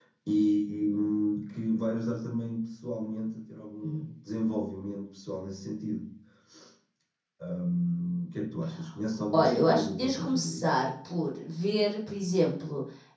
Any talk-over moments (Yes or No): Yes